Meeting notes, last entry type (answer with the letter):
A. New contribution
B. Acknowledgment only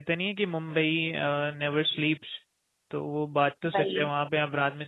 B